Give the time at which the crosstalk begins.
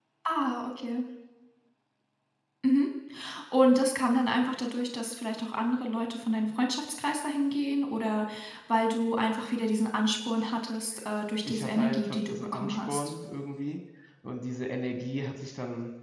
11.4 s

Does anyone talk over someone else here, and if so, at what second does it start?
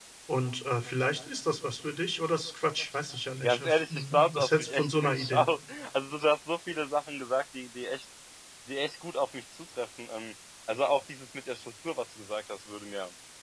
3.4 s

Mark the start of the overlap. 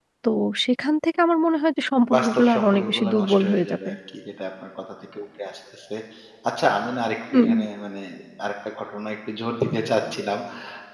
2.1 s

